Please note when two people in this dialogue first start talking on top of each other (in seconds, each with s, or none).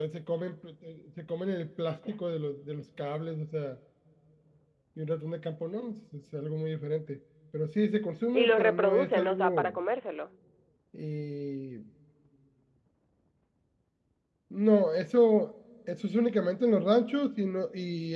8.3 s